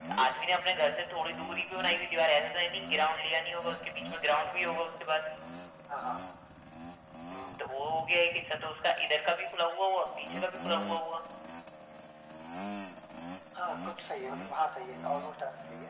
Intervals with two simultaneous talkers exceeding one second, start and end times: none

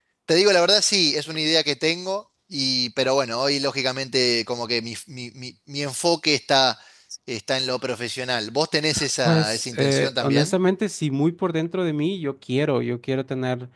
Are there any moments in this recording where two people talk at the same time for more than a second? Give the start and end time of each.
9.2-10.5

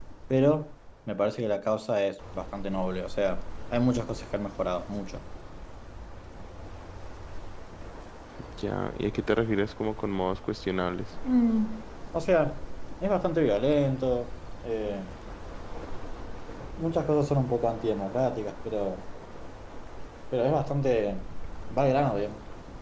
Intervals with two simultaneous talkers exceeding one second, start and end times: none

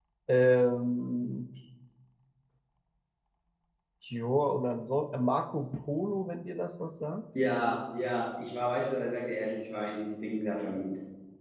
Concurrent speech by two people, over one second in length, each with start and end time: none

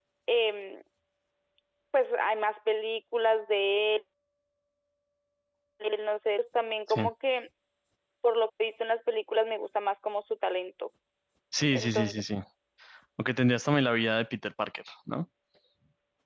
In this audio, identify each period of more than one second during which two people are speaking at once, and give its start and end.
none

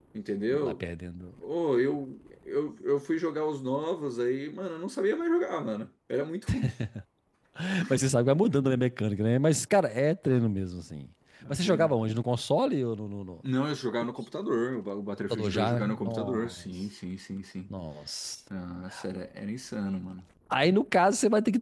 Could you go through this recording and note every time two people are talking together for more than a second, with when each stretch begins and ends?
15.3-16.7

